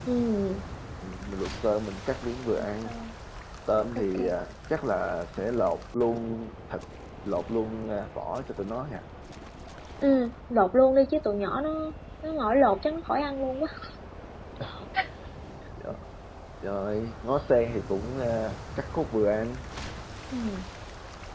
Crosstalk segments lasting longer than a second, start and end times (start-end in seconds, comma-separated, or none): none